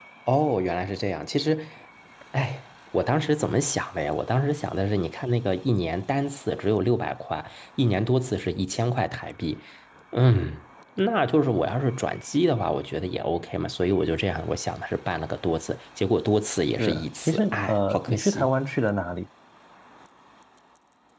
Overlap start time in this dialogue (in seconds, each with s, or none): 16.8 s